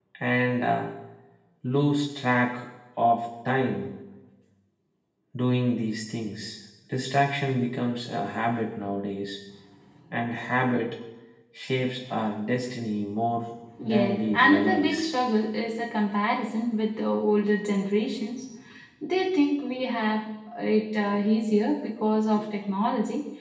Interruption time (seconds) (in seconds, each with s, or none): 13.8 s